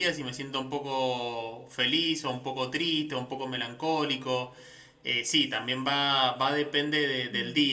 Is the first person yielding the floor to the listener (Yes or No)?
No